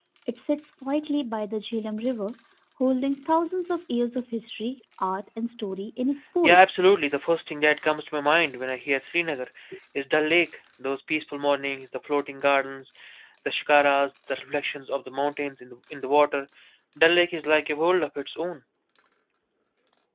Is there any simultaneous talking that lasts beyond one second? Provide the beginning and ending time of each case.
none

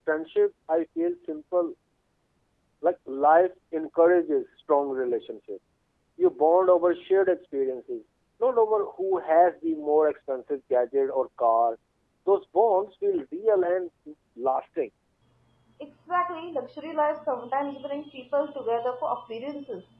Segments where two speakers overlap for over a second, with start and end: none

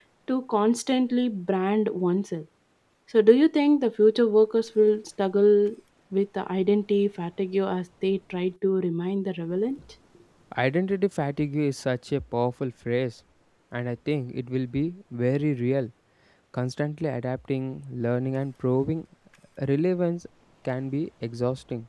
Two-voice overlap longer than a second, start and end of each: none

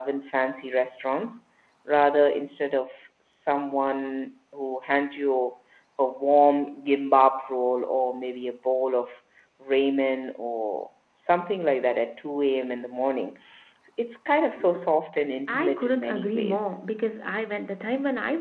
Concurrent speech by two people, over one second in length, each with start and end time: 15.5-16.7

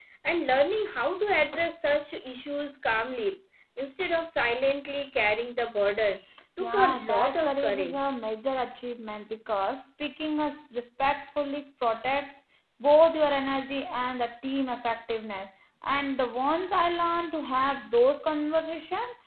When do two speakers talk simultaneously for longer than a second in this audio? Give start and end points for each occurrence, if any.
6.6-8.2

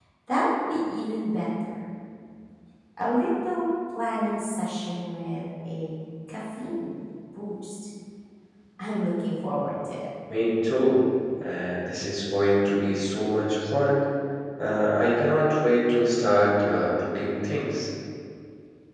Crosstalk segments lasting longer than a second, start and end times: none

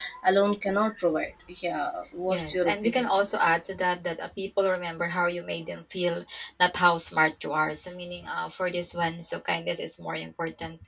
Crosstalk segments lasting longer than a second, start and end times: 2.3-3.6

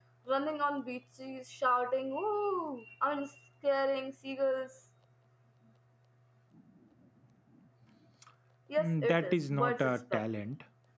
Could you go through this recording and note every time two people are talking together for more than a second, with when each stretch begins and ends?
8.8-10.2

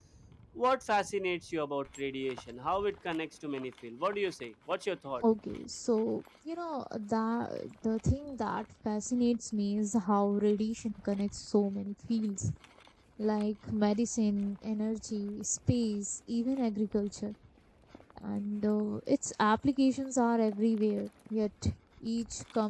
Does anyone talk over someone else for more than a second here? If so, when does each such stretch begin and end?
none

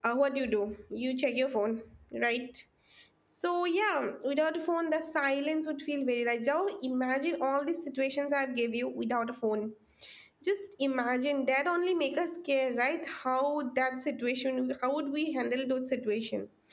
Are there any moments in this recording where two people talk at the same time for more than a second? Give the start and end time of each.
none

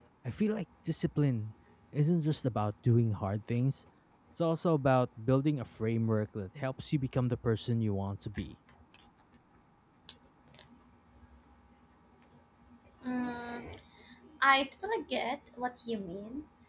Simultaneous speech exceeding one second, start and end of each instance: none

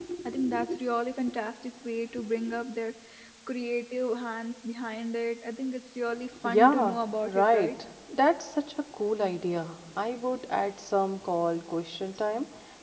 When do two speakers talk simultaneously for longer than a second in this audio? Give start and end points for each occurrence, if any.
6.5-7.7

